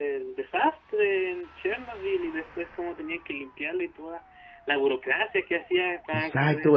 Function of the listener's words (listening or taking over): taking over